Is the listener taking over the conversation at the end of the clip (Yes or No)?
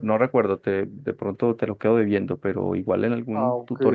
No